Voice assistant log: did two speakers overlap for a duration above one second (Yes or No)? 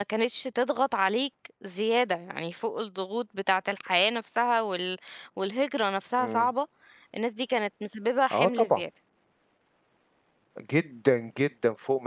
No